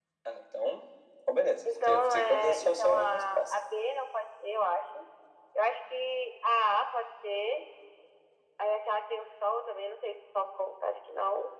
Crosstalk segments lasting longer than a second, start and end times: 1.6-3.6

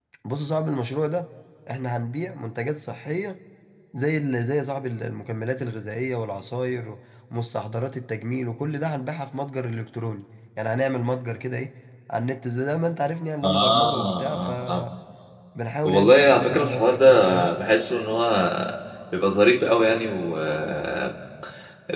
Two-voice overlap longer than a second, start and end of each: 13.4-14.9, 15.9-17.5

